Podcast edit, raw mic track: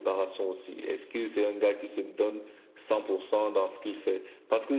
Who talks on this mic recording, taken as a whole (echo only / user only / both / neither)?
echo only